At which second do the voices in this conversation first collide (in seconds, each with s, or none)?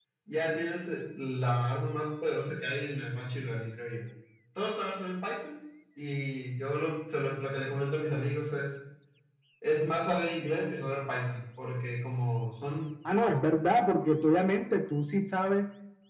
none